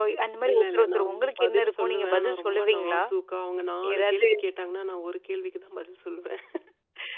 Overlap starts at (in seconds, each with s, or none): 0.5 s